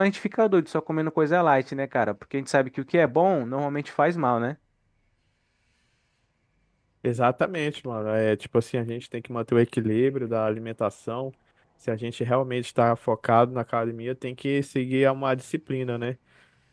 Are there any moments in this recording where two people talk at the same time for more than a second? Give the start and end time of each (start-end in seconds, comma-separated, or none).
none